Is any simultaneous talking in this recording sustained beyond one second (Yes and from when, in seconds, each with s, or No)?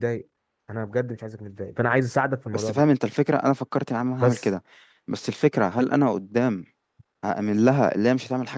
No